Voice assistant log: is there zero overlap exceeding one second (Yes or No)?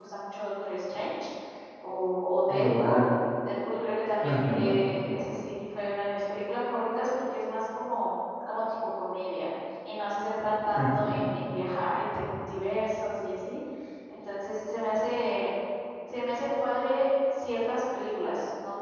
Yes